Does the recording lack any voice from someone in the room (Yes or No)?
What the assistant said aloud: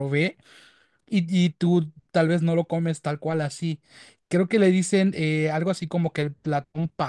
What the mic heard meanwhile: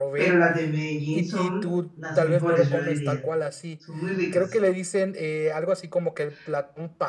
No